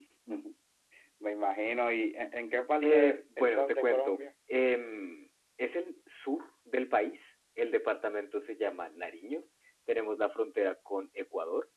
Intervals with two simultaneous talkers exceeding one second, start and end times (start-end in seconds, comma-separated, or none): 2.8-4.2